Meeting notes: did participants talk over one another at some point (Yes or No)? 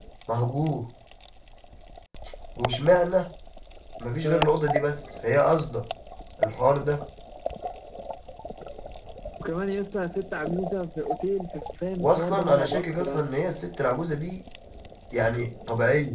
Yes